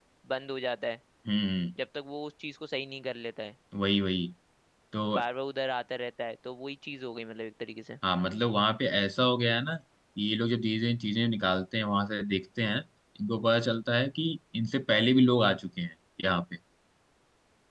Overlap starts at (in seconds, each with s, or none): none